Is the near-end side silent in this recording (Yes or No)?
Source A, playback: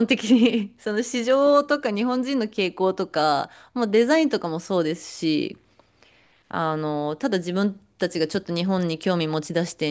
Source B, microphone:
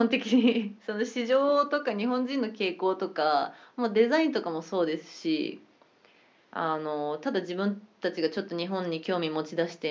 Yes